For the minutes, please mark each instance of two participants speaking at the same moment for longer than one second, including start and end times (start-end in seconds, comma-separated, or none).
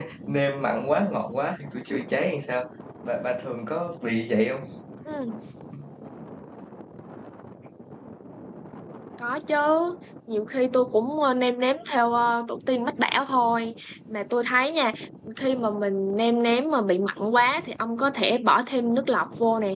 none